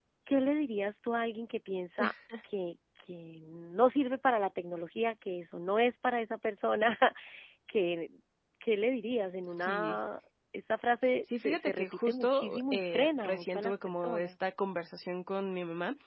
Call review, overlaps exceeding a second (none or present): present